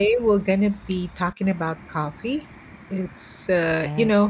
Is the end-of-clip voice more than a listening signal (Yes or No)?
No